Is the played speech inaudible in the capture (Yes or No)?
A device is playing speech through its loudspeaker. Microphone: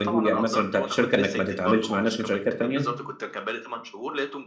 No